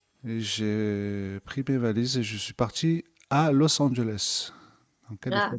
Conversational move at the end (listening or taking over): taking over